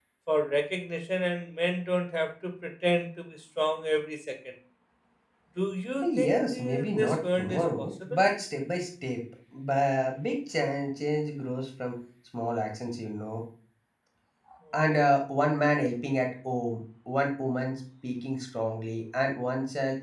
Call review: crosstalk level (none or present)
present